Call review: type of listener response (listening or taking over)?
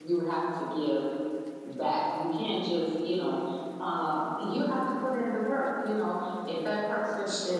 listening